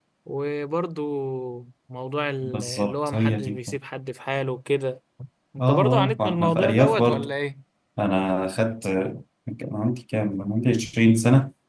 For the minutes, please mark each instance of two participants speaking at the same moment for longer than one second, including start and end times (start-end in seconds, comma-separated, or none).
2.4-3.8, 5.6-7.3